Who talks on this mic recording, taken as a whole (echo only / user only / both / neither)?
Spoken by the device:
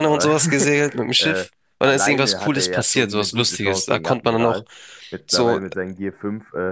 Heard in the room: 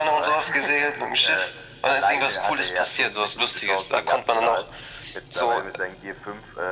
echo only